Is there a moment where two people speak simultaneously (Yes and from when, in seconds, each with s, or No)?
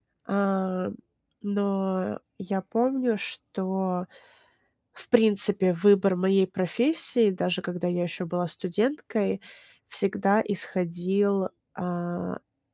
No